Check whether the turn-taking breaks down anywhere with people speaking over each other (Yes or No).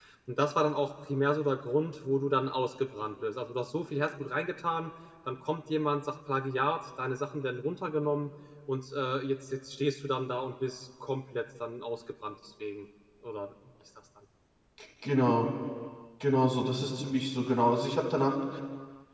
No